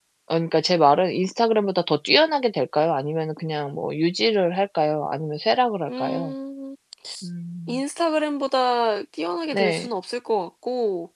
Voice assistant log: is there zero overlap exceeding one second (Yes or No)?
Yes